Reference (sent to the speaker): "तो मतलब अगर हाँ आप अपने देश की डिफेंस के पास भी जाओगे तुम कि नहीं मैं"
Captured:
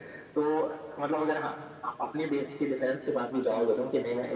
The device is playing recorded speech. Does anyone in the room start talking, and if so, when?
none

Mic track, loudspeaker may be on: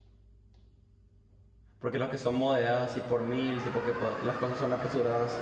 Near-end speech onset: 2 s

